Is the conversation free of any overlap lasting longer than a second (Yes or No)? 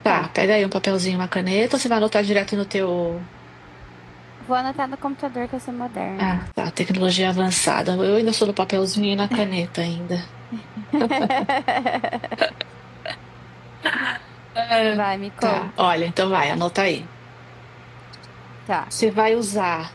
Yes